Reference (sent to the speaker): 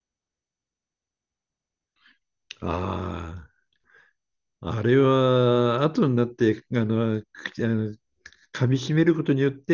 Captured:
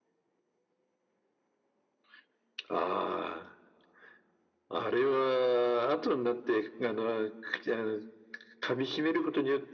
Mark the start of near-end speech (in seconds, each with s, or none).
none